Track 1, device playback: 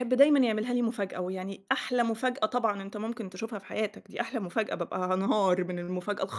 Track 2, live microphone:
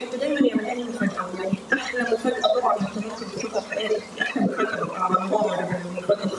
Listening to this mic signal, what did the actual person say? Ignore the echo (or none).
none